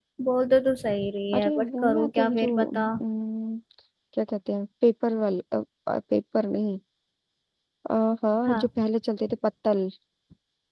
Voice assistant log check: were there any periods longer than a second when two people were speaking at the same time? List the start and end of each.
1.3-2.9

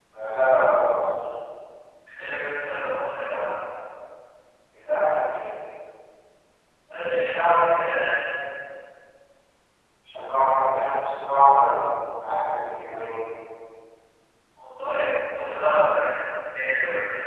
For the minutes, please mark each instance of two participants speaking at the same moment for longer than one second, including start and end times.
none

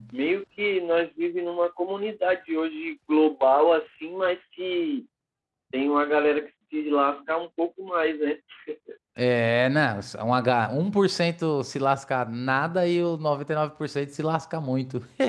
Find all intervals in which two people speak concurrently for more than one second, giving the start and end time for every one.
none

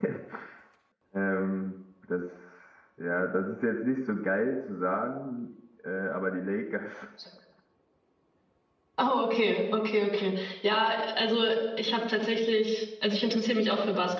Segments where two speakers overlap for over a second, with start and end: none

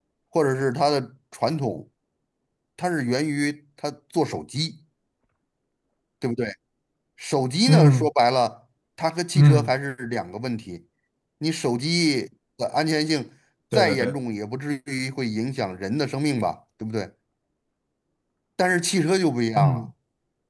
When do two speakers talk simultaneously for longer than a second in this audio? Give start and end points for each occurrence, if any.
none

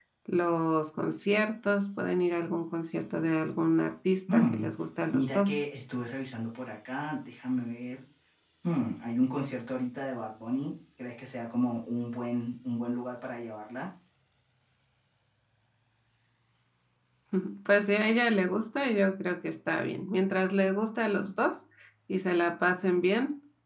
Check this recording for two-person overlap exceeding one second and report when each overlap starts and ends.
none

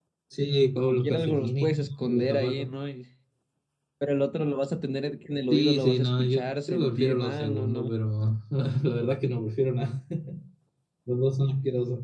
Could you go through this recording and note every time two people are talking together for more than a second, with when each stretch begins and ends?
0.8-2.7, 5.5-7.9

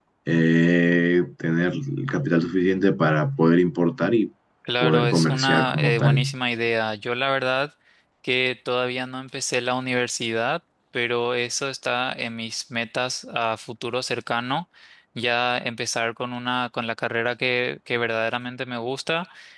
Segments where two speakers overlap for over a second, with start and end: 4.8-6.3

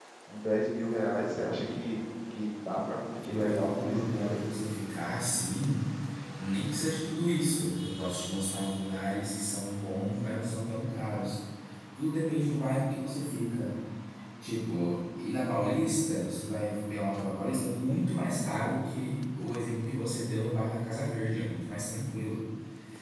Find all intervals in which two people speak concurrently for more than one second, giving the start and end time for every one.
3.2-4.5

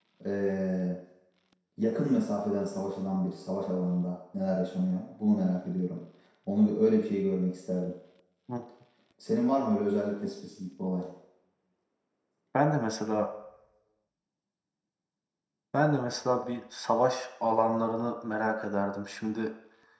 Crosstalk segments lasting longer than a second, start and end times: none

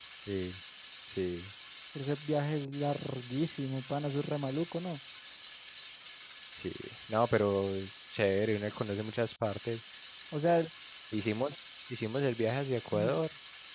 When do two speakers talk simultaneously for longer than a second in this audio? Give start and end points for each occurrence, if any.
none

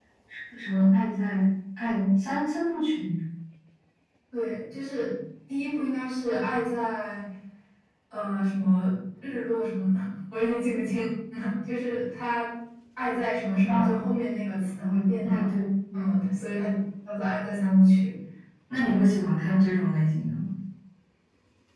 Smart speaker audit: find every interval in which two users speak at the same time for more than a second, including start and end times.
none

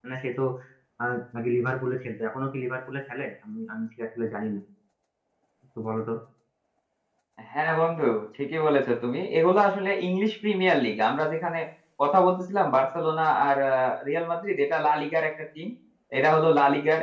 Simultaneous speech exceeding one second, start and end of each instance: none

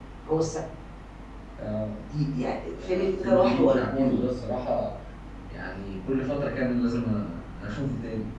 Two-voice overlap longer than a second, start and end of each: 2.7-4.2

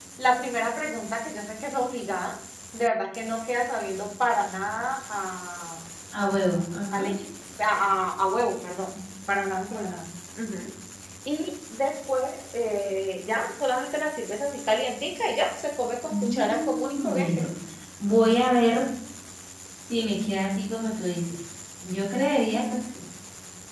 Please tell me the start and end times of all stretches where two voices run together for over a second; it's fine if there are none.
16.1-17.5

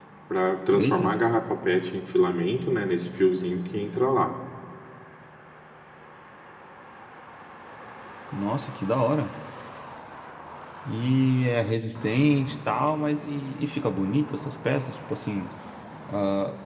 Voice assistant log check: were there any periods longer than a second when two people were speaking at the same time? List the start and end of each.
none

